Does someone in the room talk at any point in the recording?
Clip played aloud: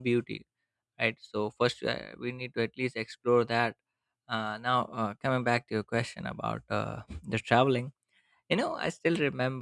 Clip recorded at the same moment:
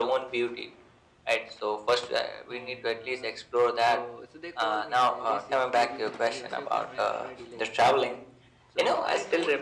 Yes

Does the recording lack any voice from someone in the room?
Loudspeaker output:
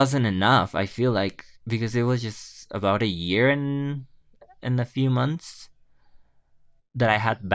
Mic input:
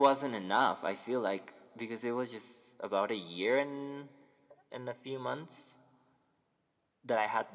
Yes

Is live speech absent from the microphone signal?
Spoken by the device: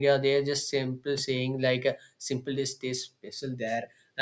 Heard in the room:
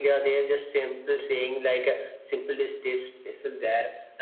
Yes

